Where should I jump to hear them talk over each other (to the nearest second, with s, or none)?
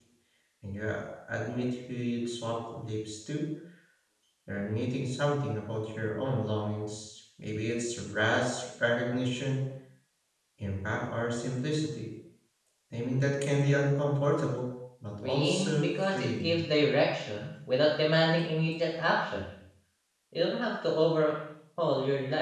15 s